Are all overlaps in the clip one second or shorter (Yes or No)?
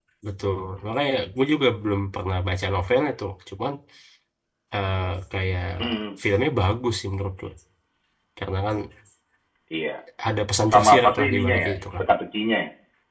No